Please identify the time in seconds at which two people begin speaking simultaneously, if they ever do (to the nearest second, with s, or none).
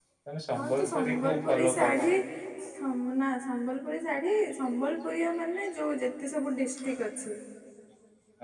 1 s